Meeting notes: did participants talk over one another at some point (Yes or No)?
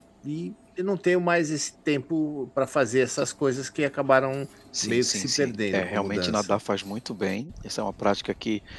Yes